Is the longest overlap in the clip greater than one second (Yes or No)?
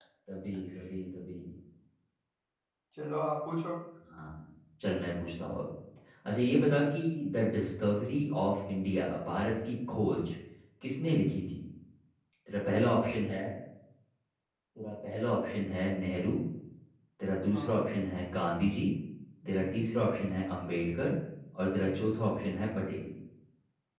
No